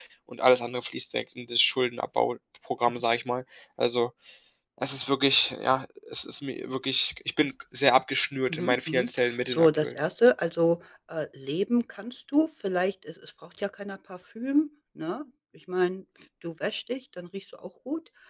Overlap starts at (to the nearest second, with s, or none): 9 s